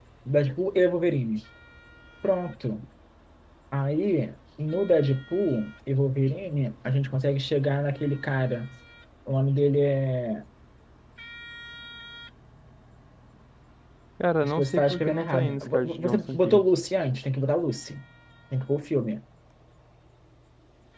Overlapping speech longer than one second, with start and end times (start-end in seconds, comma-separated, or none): 14.4-16.6